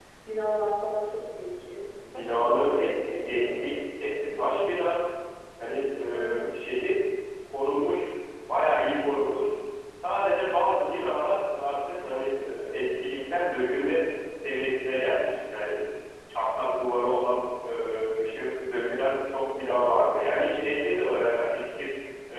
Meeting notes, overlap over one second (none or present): present